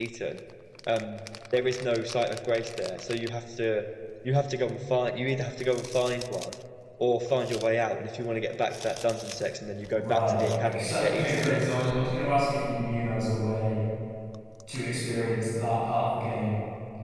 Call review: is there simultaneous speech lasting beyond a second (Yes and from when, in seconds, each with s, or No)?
Yes, from 10.0 s